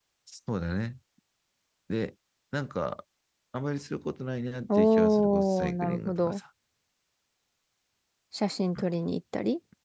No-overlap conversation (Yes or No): No